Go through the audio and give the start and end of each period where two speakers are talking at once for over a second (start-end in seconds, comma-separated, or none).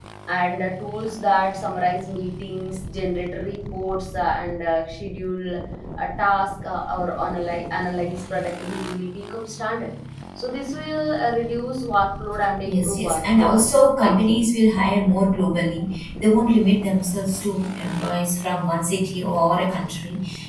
12.6-14.4